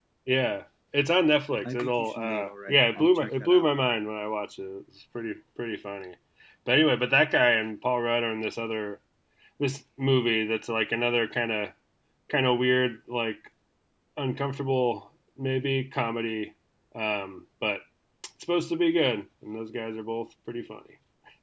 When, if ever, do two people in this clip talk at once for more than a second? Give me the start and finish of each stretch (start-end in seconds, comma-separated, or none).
1.6-3.7